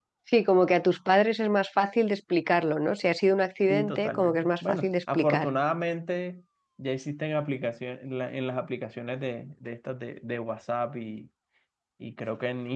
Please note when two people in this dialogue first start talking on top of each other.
3.7 s

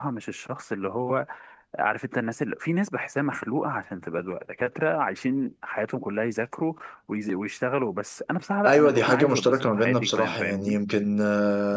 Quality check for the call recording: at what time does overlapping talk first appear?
8.6 s

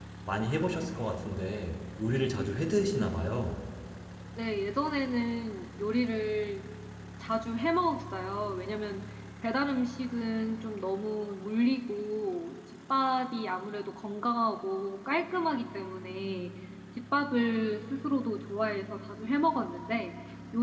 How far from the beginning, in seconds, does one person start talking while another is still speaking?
none

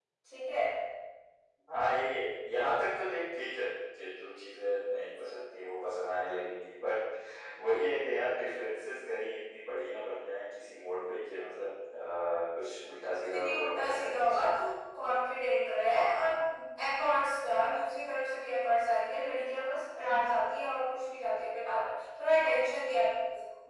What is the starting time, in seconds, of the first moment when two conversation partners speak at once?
13.1 s

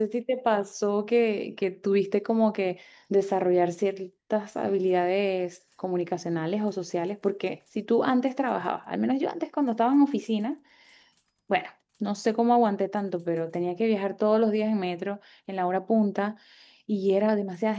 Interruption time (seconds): none

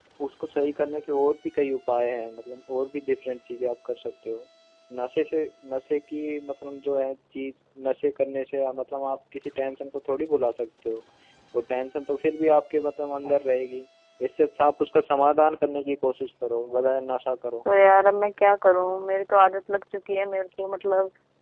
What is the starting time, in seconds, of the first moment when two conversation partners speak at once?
none

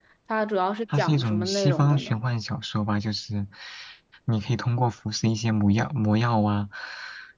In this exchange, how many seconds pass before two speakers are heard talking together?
1.0 s

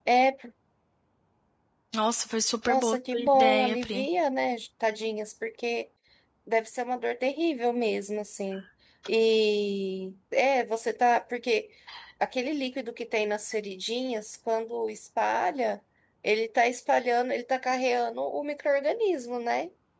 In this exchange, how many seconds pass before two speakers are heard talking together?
2.6 s

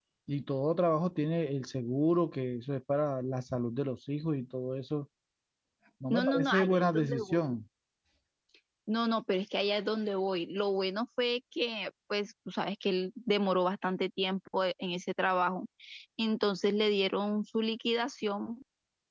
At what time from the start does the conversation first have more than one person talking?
6.1 s

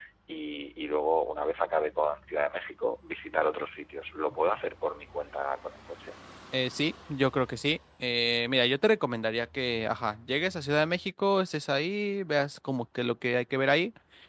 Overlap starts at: none

